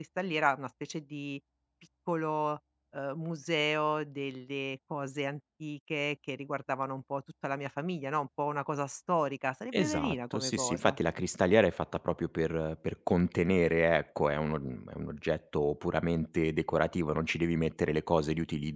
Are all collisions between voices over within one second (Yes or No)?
No